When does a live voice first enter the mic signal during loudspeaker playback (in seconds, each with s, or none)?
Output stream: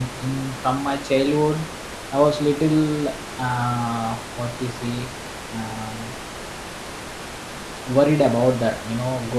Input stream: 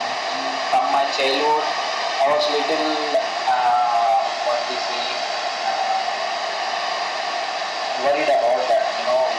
none